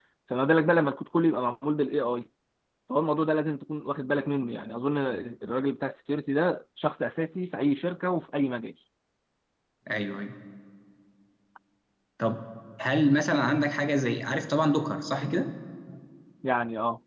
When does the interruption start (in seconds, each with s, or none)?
none